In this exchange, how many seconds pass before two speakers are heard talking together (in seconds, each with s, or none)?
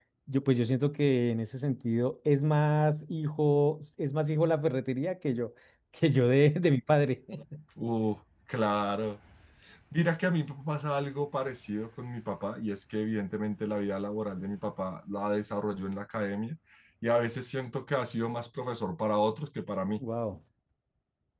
none